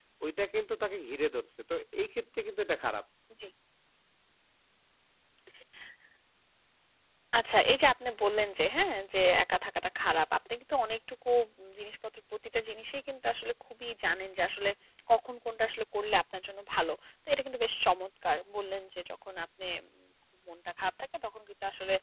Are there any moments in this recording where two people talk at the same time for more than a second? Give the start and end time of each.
none

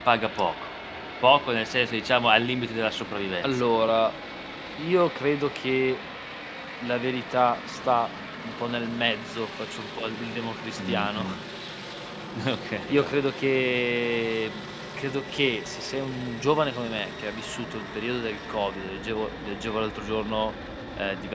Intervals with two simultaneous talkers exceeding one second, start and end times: none

